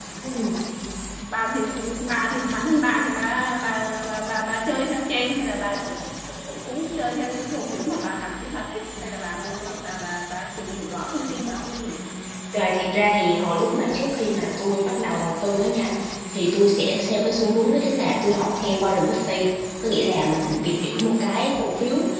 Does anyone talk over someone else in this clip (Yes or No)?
No